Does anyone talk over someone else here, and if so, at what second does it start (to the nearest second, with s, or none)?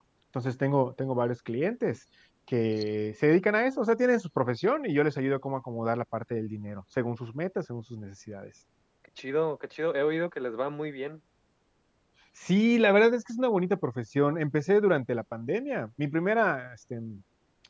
none